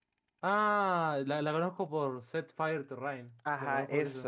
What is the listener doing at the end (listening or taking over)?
taking over